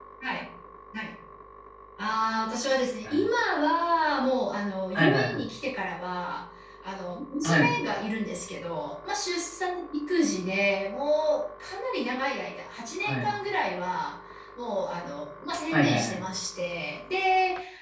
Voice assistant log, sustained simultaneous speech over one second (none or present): none